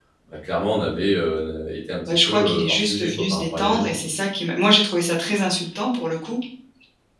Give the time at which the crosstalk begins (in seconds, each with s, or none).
2.1 s